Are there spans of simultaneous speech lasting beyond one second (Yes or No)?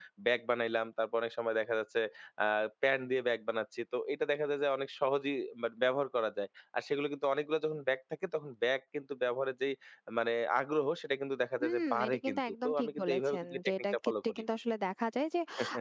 Yes